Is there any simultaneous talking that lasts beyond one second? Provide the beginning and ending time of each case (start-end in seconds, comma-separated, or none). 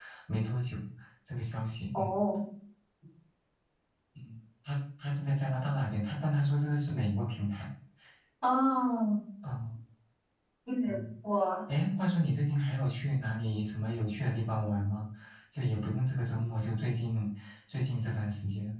none